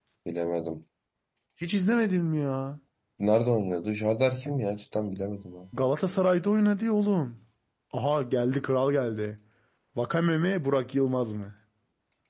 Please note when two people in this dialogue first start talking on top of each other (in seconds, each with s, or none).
none